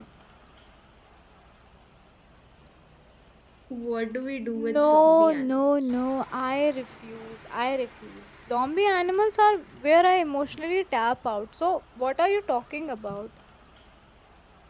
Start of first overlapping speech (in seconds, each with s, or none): 4.5 s